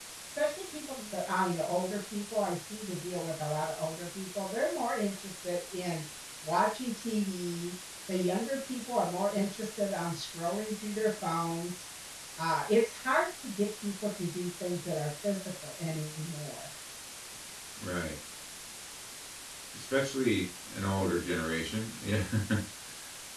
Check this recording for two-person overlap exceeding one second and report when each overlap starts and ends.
none

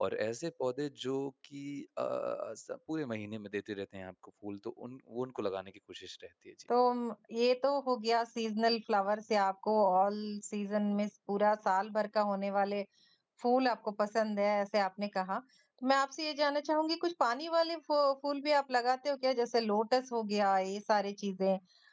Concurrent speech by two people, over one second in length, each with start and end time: none

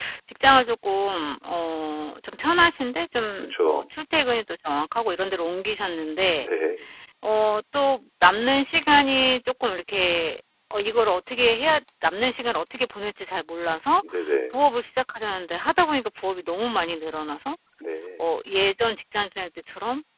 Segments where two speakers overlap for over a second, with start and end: none

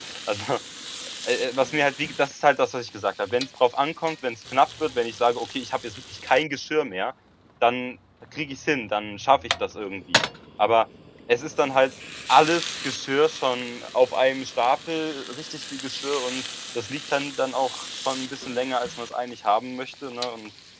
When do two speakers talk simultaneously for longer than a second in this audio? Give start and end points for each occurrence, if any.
none

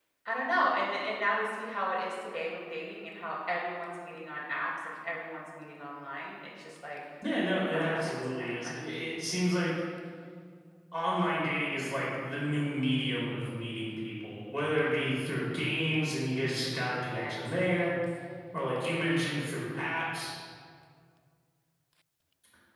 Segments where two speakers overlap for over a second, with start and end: 7.7-8.9

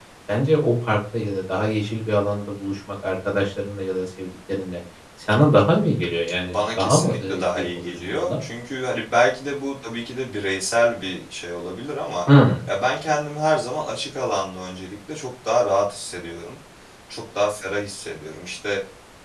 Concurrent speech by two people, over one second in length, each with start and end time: 6.4-8.4

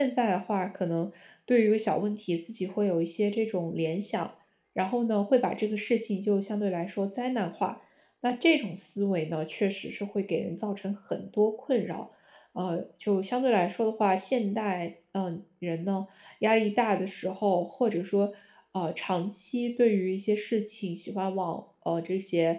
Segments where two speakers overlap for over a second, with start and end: none

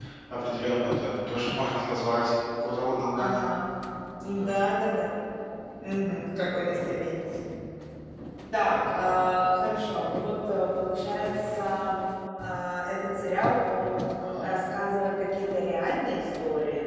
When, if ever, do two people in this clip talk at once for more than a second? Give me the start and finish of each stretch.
none

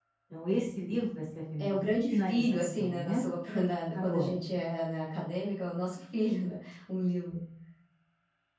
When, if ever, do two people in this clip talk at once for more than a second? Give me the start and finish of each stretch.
1.7-3.2

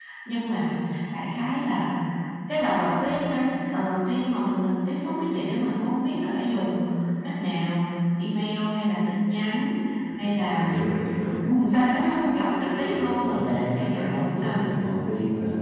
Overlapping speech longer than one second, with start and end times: 12.6-14.7

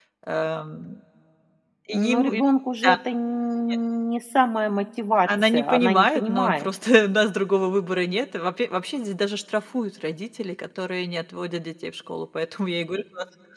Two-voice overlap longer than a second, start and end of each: 5.3-6.7

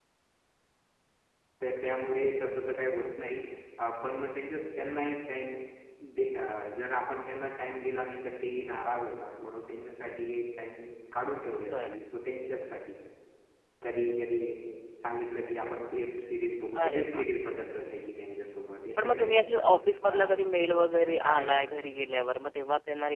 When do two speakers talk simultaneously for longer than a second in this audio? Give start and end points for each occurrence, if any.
19.0-20.3

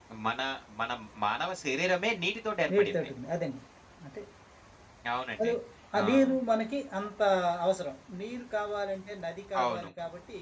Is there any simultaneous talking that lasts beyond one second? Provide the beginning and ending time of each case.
none

